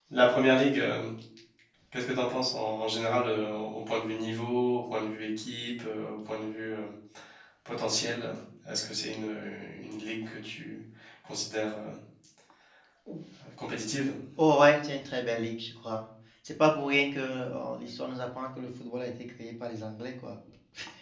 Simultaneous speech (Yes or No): No